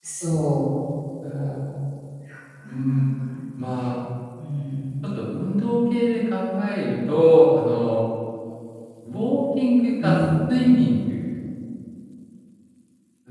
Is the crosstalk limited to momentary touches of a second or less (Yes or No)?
Yes